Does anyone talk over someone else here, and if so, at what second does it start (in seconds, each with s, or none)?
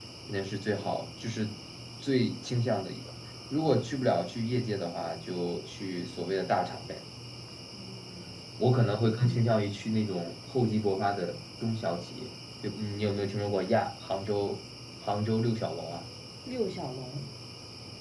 none